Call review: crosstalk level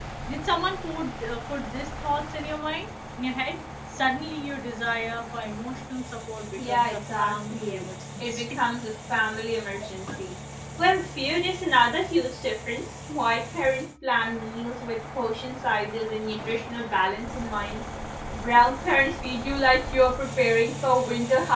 present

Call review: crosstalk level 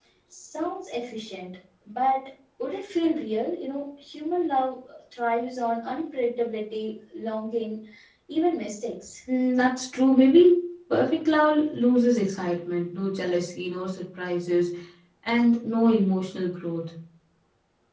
none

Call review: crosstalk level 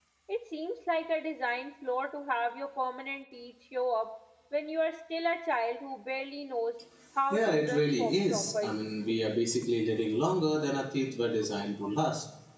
present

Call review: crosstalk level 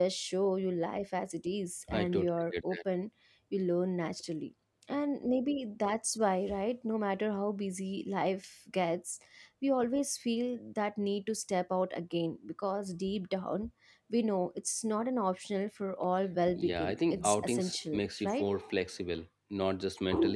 present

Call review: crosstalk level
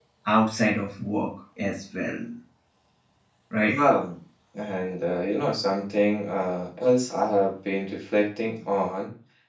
none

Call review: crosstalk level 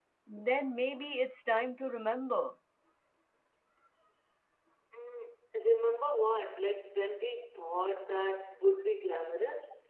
none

